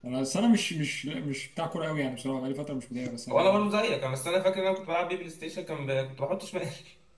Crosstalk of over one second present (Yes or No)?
No